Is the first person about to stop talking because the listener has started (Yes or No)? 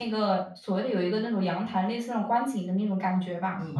Yes